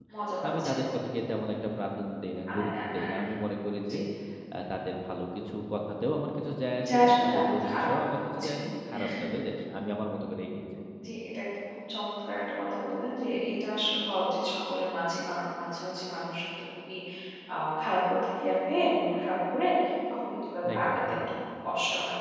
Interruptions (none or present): present